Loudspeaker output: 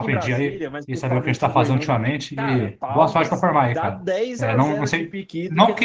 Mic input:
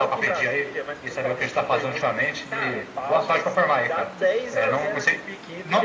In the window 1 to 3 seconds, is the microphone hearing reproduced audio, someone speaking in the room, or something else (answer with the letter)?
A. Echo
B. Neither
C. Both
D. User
A